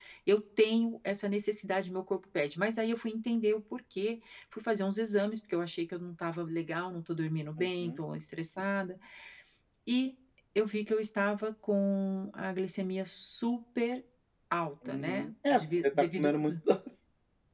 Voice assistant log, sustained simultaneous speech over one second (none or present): present